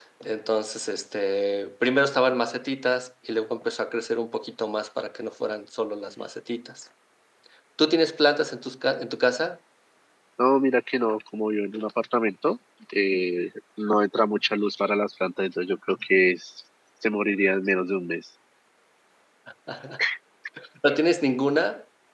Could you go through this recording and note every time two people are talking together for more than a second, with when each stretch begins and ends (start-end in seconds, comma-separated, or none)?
none